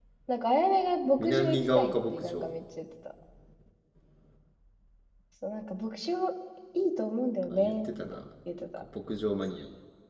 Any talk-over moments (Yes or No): Yes